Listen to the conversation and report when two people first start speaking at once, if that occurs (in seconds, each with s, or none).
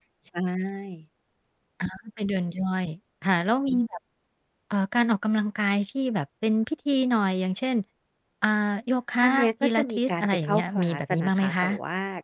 9.2 s